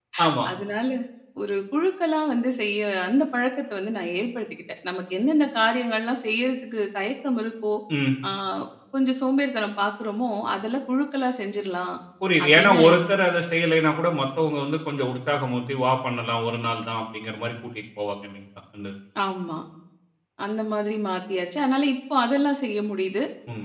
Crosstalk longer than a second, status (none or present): none